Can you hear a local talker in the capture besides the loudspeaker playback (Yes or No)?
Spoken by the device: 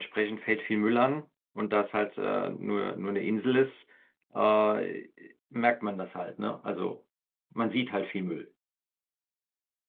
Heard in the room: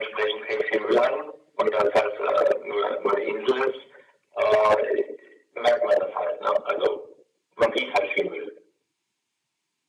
No